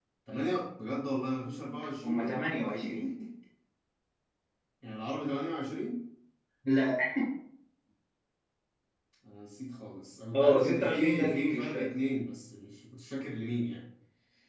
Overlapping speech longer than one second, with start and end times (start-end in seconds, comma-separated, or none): 10.3-11.9